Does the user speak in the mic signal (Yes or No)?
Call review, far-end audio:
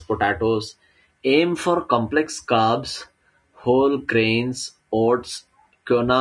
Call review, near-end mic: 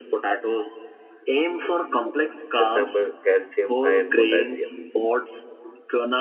Yes